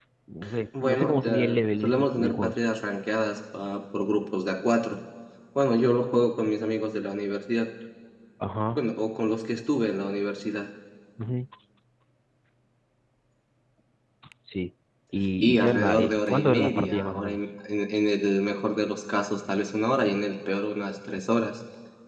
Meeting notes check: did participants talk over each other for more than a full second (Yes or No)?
Yes